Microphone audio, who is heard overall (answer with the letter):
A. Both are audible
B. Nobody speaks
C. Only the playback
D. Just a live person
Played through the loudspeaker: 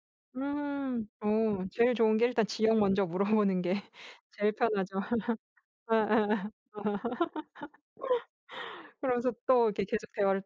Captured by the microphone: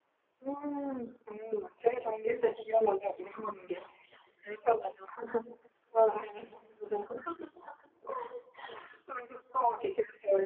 C